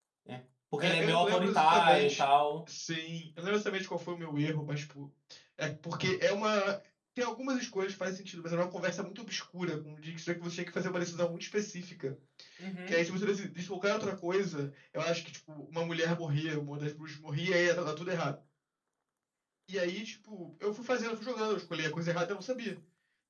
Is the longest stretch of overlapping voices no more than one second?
No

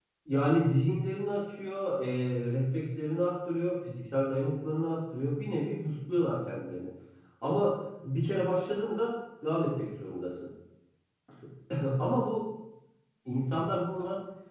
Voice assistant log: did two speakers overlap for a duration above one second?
No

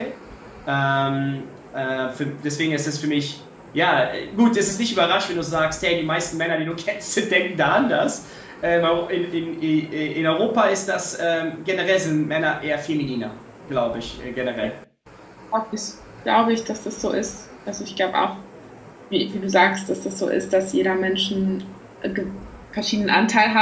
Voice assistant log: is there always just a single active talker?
Yes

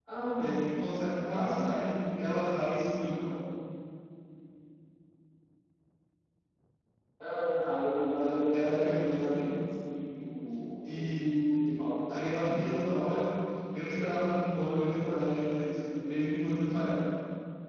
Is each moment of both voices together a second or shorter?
No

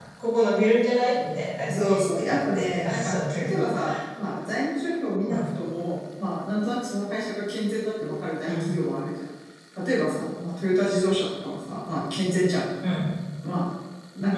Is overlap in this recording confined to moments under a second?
No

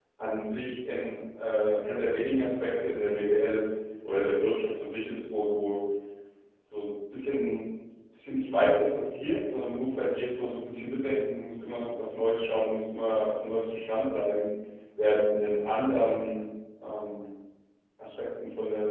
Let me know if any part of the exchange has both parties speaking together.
No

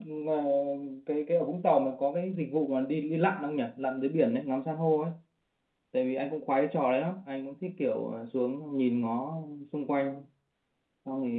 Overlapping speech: No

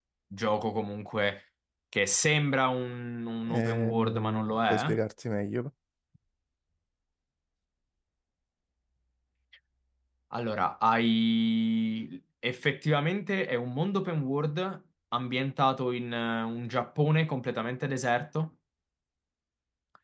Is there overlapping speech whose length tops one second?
Yes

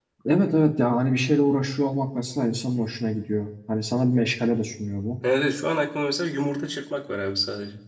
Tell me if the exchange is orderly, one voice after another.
Yes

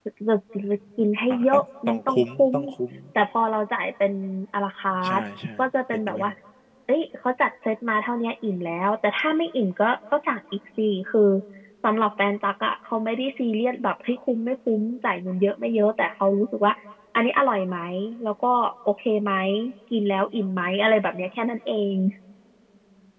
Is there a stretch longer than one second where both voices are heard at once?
Yes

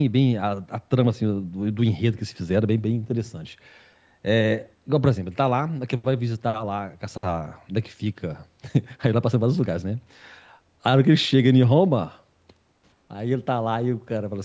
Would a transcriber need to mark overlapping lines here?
No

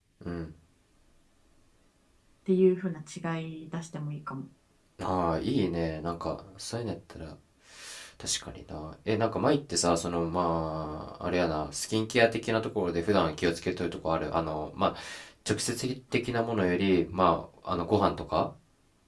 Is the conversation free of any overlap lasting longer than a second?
Yes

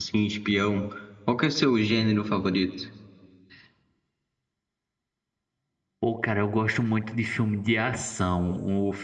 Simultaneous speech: No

